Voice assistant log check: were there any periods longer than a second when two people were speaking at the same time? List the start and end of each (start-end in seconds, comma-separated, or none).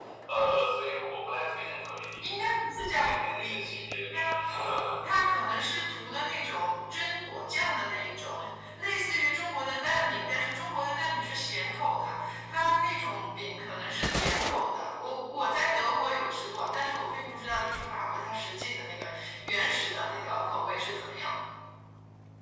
2.9-4.3